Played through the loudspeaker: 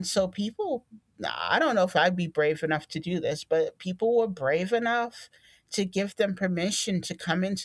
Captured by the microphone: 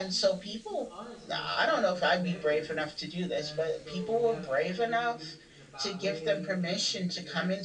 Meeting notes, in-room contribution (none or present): present